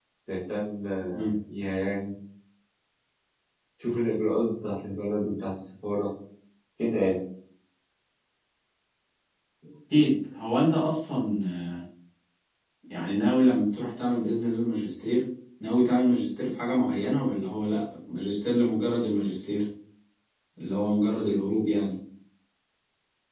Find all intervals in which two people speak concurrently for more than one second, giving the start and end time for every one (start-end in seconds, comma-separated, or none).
none